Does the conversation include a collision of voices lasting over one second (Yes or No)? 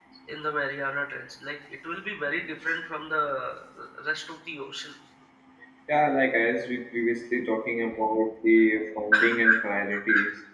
No